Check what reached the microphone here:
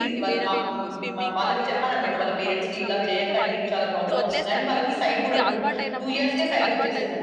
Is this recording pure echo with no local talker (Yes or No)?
No